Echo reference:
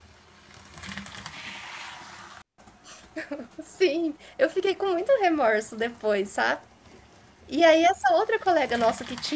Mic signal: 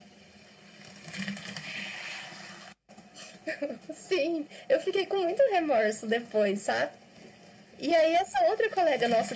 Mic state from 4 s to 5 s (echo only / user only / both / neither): echo only